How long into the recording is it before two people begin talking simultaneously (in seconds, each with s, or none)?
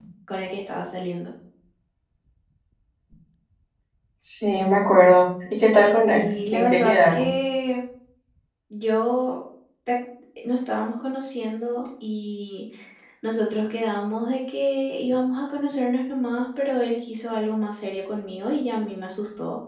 6.1 s